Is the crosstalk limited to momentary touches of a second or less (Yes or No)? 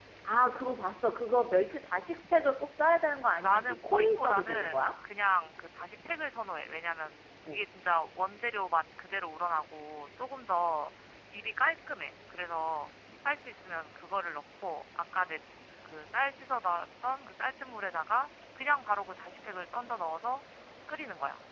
No